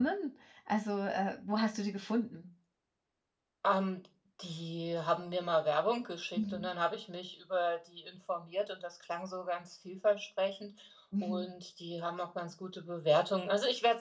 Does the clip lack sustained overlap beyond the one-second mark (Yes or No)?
Yes